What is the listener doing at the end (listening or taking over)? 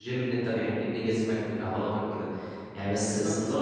listening